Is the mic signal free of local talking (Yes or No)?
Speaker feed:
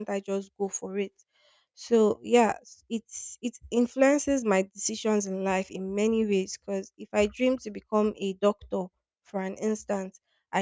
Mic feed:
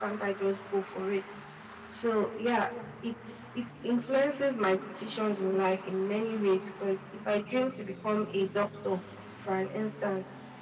Yes